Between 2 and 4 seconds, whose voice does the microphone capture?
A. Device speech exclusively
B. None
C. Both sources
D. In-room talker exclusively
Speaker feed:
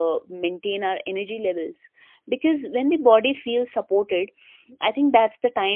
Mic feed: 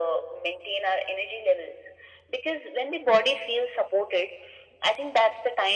A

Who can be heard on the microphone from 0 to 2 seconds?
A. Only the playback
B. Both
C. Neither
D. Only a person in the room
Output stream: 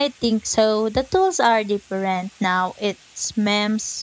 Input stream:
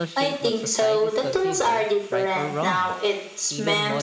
B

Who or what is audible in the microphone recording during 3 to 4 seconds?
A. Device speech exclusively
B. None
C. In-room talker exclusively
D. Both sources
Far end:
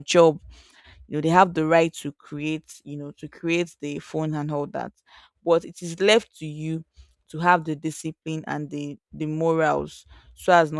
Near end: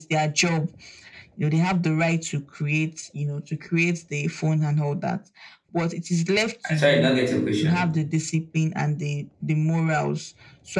A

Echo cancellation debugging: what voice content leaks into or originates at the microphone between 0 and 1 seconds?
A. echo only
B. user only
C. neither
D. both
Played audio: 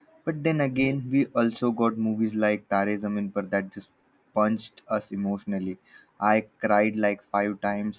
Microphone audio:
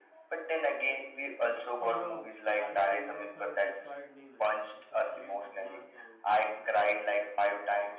A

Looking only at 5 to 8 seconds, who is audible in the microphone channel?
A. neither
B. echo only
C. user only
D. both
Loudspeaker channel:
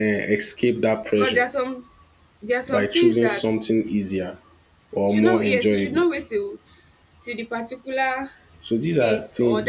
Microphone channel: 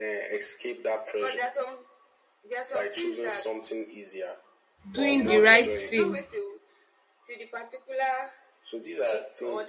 D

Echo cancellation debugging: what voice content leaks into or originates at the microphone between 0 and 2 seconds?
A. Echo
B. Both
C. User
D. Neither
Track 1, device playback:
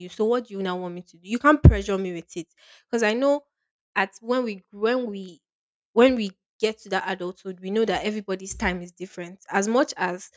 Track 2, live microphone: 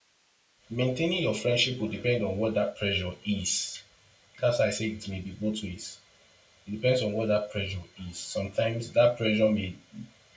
C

